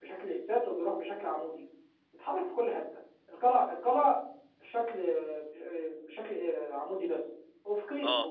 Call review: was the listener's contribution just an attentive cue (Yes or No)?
Yes